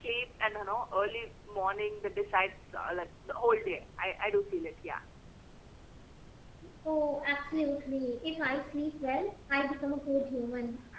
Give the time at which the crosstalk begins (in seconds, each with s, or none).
none